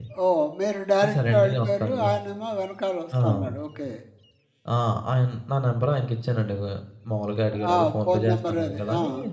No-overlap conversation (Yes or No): No